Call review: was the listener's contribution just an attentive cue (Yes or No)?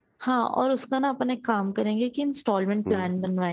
Yes